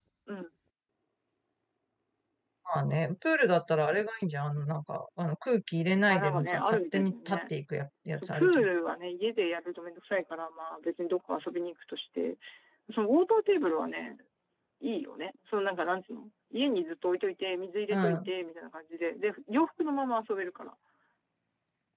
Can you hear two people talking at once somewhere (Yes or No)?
Yes